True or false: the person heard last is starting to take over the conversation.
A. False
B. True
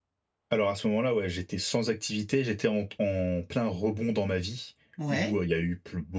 A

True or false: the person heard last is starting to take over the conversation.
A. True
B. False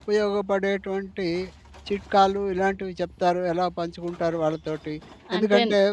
B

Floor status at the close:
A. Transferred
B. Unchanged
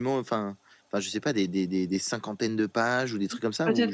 A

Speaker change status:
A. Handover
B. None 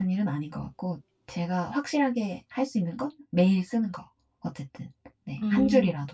A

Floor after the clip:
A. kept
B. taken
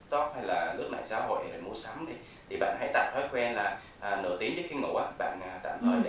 A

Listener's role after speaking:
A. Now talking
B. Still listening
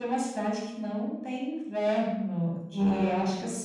B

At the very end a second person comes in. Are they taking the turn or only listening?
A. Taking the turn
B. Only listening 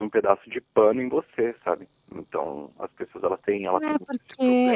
A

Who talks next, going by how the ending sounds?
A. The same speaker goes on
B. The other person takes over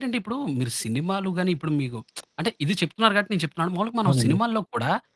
A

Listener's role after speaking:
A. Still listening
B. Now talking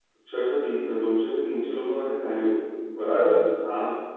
A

